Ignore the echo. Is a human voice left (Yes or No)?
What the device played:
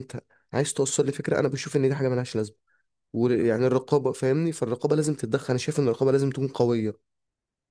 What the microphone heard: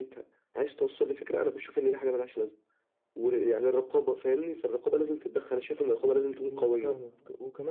Yes